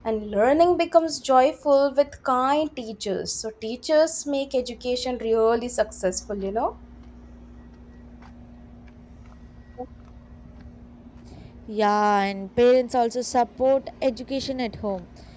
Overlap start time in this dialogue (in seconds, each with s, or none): none